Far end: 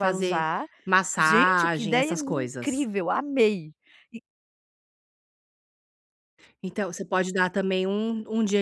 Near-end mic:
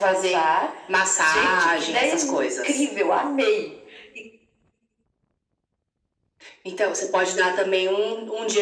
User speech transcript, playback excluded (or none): none